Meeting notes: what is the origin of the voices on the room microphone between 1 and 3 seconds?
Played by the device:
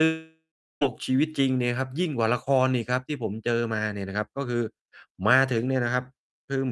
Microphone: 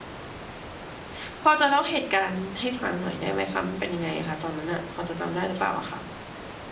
user only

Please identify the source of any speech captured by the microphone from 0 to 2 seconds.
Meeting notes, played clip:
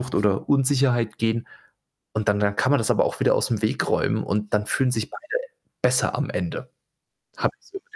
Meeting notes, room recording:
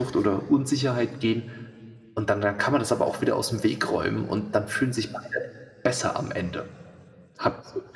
echo only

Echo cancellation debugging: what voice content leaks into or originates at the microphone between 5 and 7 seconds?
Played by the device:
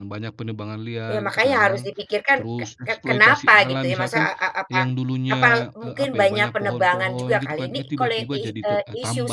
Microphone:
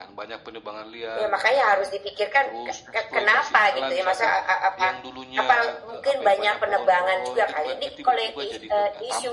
echo only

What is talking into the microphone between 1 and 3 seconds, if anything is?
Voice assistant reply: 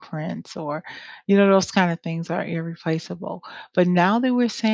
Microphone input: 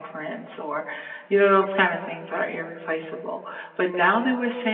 echo only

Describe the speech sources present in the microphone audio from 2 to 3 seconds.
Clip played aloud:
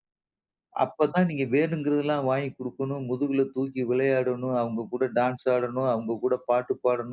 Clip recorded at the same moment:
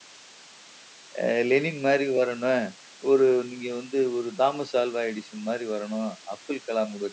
user only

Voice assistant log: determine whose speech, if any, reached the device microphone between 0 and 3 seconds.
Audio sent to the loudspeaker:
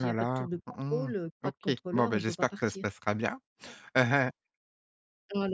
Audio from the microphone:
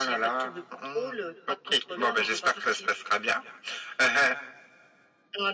echo only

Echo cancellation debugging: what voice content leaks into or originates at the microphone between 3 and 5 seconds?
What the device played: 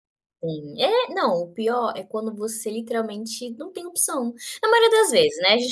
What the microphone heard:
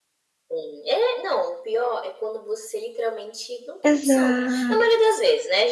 both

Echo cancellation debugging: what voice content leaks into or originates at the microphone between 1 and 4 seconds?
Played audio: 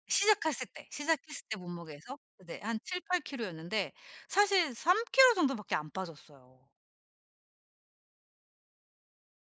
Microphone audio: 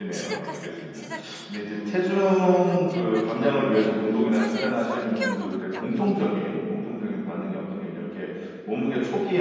both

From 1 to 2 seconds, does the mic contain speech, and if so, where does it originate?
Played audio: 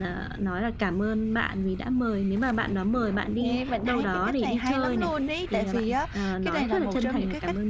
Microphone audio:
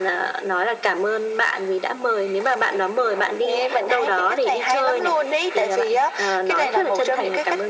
echo only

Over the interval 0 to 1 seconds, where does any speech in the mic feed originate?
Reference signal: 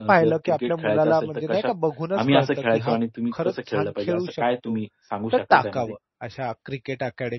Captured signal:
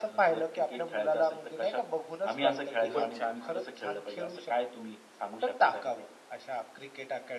echo only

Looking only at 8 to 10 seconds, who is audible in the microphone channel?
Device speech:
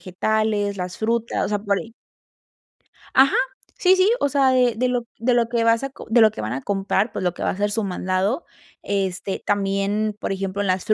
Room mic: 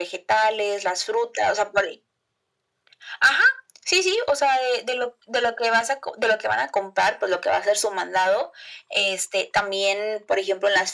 echo only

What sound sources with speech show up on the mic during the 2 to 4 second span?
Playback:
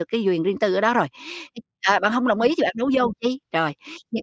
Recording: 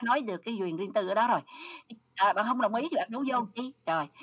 echo only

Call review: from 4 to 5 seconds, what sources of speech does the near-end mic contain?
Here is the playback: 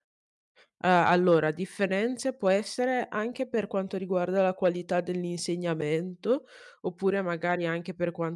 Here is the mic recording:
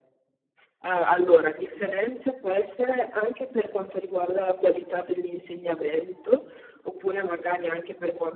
echo only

